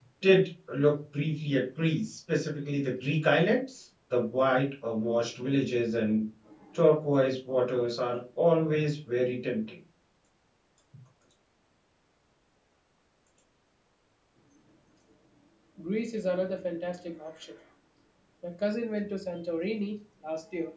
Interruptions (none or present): none